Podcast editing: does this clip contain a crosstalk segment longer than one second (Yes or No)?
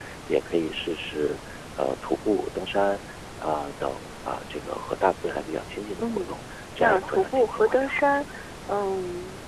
Yes